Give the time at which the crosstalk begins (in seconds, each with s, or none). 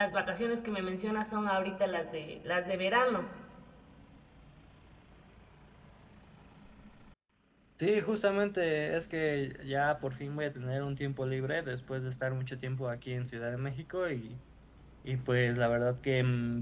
none